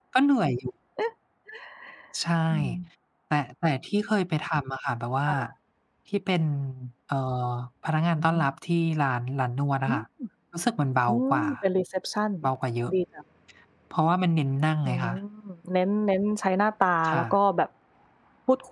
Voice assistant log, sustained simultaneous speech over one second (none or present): none